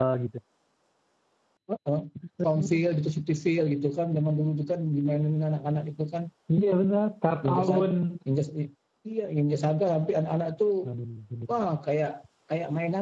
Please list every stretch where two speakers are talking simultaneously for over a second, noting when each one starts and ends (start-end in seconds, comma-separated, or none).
none